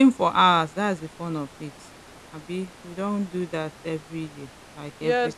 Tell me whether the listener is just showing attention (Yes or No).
No